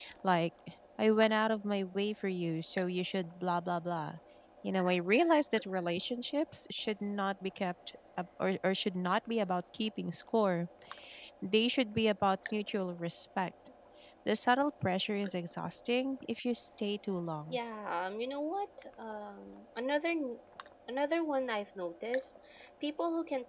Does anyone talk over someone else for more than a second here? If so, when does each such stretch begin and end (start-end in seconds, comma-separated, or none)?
none